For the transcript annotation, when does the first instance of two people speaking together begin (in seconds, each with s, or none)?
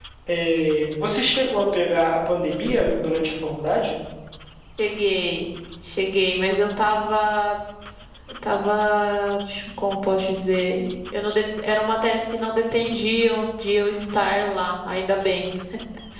none